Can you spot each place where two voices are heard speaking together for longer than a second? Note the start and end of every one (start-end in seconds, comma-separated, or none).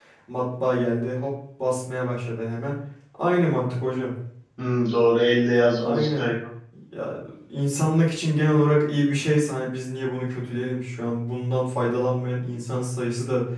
none